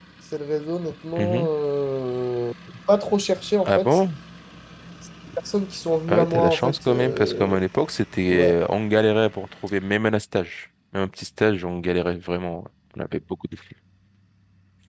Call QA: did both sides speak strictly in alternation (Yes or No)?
No